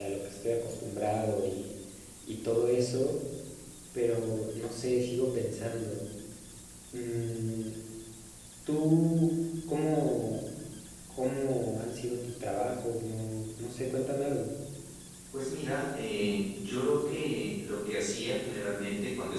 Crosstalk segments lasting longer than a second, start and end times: none

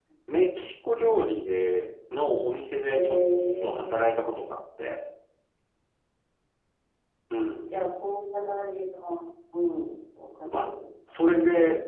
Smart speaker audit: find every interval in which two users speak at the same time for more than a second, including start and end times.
none

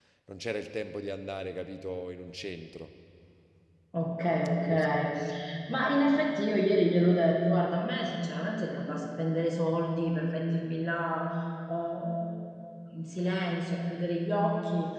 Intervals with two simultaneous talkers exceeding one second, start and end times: none

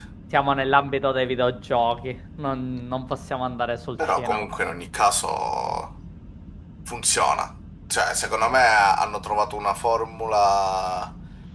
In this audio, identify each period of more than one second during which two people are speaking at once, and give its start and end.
none

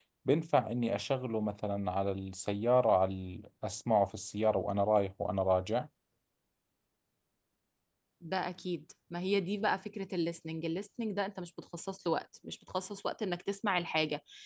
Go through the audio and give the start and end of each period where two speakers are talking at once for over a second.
none

